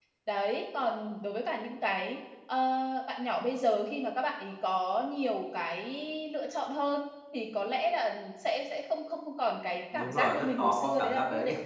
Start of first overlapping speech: 9.9 s

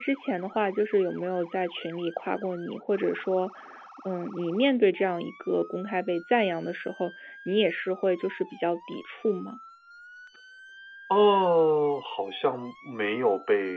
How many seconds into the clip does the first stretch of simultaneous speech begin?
none

